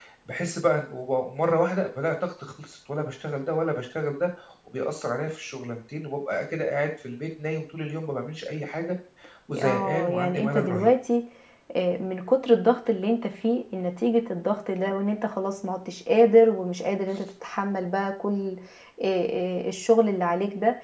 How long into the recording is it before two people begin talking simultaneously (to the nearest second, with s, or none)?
10 s